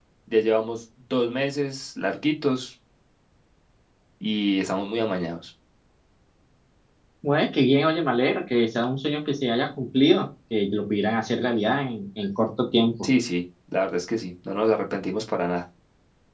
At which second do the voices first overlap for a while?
none

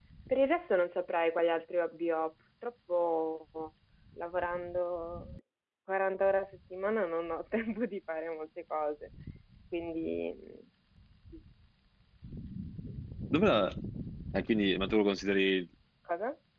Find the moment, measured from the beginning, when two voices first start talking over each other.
none

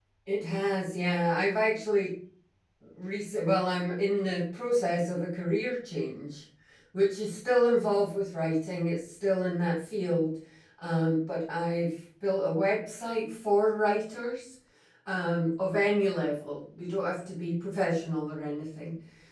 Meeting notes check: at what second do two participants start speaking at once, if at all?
none

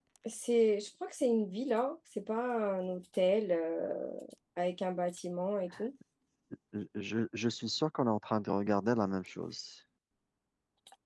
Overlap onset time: none

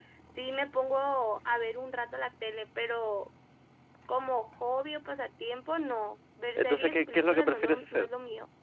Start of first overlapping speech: 6.6 s

